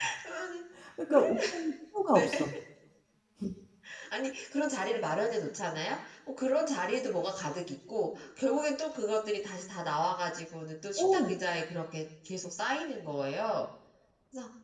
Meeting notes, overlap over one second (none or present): none